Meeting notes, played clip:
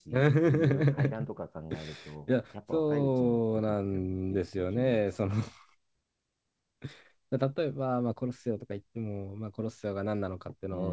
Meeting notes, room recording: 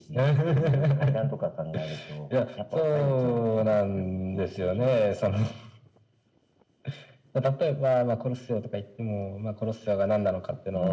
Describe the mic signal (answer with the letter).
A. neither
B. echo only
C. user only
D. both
B